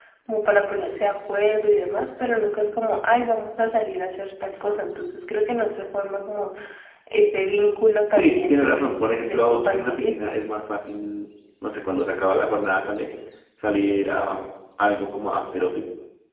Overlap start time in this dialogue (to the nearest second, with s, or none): 8 s